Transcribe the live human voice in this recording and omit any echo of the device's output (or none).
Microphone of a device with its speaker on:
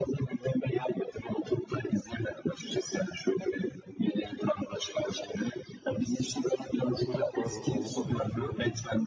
grup var. Böyle Avrupa'da geçiyor.